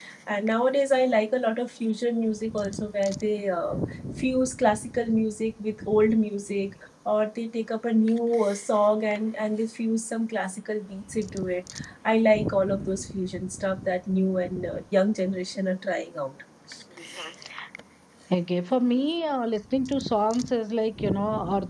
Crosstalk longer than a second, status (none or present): none